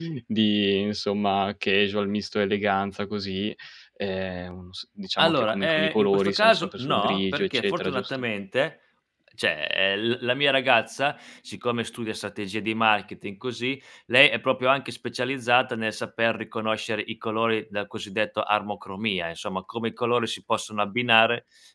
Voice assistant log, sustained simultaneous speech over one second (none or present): present